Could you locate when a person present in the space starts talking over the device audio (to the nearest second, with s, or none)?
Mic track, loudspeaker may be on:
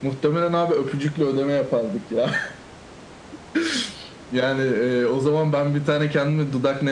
none